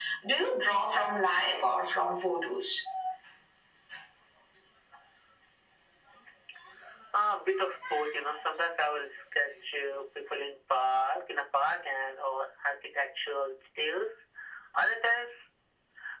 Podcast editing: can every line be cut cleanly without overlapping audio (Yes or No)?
Yes